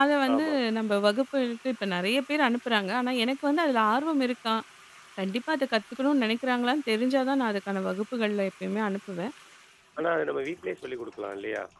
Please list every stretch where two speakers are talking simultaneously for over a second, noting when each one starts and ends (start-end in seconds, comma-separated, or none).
none